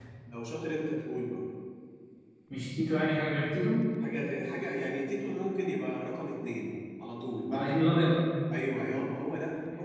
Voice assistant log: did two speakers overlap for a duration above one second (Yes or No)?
No